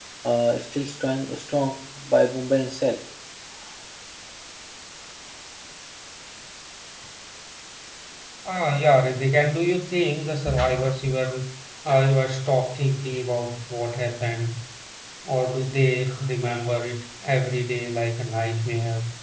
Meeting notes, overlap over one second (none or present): none